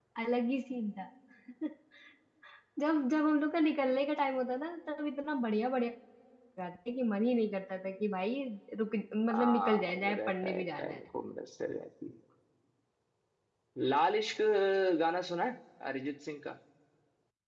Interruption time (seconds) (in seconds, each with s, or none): 9.3 s